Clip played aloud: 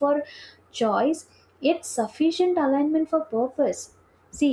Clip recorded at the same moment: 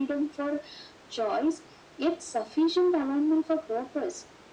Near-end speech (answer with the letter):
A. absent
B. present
A